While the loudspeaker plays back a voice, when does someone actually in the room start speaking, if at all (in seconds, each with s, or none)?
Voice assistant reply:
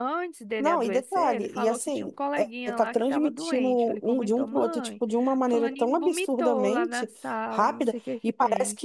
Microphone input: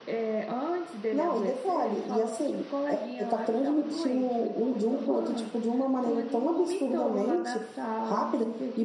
none